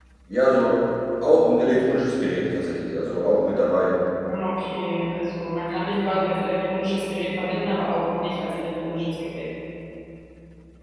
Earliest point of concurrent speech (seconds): none

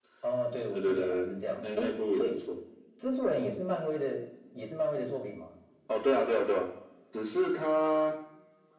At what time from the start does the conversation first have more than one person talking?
0.7 s

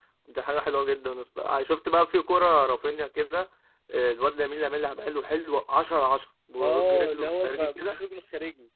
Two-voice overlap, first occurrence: 6.6 s

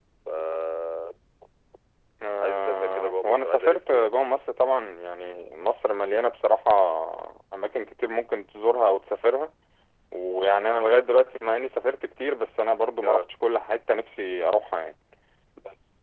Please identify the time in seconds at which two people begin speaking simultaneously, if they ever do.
2.4 s

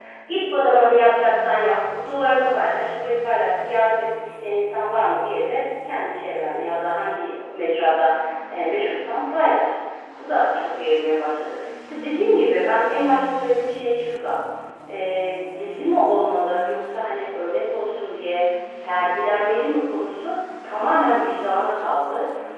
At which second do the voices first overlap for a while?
none

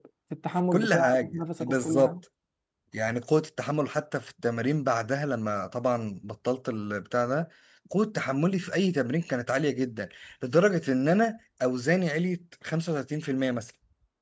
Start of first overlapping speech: 0.7 s

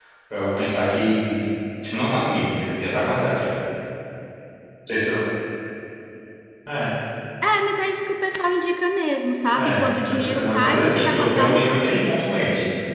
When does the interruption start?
9.6 s

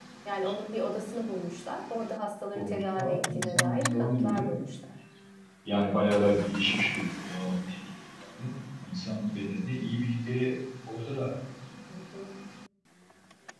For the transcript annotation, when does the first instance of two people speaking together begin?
2.5 s

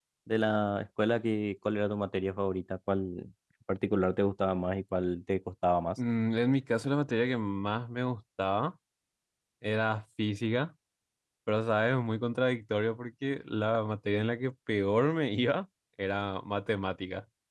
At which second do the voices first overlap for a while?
none

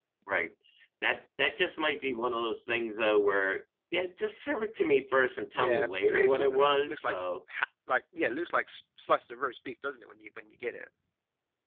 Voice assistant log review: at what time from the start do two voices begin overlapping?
5.6 s

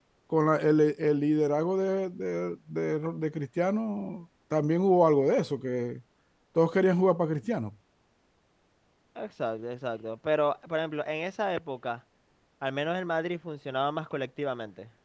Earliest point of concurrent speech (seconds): none

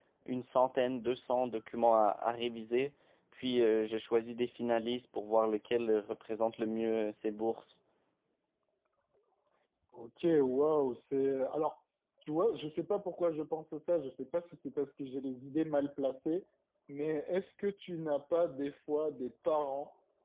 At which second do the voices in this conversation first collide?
none

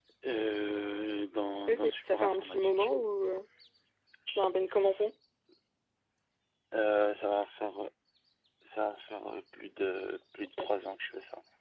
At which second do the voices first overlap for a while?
1.7 s

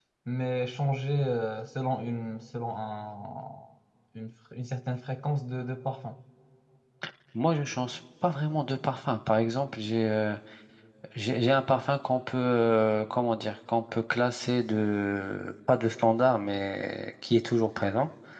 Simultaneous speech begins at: none

